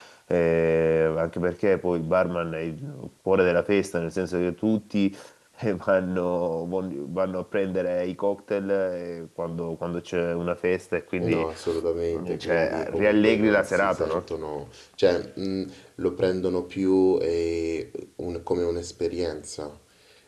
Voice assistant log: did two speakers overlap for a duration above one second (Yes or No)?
Yes